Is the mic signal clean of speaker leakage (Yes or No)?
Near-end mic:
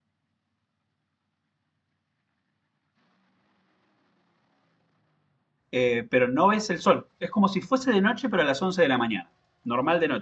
Yes